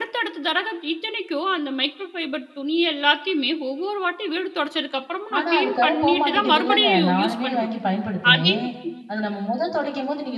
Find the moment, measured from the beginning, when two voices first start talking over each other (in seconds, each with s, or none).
5.4 s